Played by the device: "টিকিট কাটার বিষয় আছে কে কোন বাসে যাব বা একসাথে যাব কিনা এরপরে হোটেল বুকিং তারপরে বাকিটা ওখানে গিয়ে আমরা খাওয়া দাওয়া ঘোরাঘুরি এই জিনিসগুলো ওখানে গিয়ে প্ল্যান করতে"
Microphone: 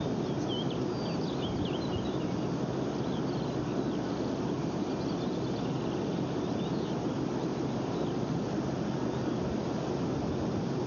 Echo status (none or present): none